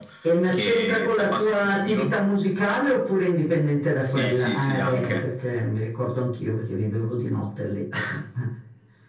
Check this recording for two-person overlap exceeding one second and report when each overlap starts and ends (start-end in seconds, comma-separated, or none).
0.5-2.2, 4.0-5.3